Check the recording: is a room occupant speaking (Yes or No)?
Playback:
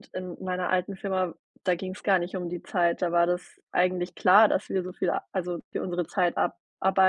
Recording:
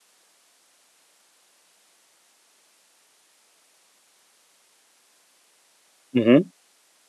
Yes